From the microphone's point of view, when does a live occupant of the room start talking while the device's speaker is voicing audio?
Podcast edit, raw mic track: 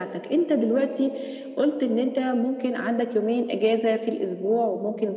none

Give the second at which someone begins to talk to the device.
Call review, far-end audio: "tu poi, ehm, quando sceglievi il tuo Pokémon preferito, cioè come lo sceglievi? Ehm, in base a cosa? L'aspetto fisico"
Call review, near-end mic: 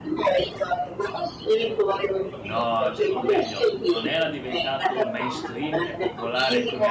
2.4 s

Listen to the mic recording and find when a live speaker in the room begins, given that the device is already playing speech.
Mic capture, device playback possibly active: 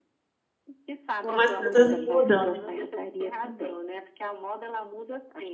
1.2 s

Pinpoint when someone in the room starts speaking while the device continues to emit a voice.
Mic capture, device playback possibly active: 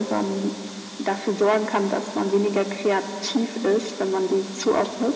none

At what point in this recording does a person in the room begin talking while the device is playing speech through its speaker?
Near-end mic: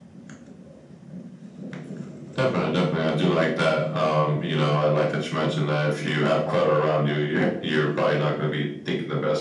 none

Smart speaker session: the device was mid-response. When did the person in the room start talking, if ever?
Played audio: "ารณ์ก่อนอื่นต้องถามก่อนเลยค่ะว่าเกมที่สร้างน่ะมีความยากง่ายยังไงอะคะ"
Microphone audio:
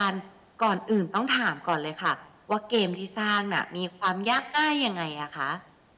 none

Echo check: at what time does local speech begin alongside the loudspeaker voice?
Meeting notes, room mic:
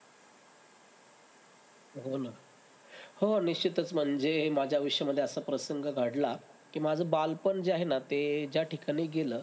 none

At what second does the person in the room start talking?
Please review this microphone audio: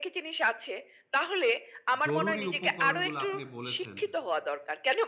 2.1 s

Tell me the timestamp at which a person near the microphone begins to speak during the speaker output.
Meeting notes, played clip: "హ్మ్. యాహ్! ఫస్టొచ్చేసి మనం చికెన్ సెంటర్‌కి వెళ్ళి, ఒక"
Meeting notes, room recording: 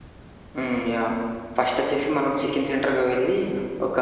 none

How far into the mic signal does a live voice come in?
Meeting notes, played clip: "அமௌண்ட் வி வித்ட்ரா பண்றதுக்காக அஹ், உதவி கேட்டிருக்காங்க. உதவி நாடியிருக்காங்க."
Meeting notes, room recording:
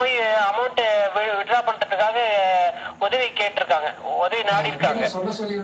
4.5 s

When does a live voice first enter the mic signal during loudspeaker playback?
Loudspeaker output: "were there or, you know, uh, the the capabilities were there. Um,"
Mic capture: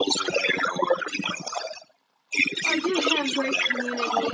2.6 s

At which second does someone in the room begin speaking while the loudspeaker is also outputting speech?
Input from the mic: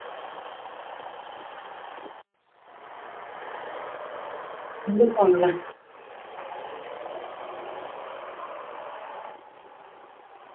4.8 s

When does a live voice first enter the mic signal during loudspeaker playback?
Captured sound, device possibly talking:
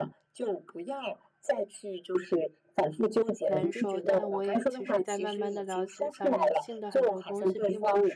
3.4 s

